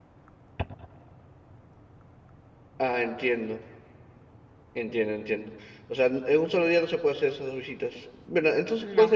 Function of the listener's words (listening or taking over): listening